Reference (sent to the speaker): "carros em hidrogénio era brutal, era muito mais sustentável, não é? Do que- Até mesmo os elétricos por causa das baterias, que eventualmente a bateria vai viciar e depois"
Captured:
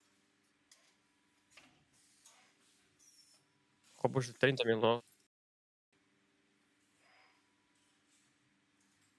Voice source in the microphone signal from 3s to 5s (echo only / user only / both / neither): user only